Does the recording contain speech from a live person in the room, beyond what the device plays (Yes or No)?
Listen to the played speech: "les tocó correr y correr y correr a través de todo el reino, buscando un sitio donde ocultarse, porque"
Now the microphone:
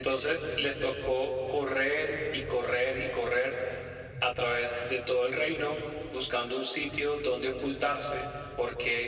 No